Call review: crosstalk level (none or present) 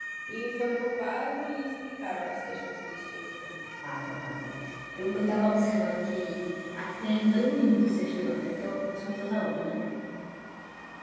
none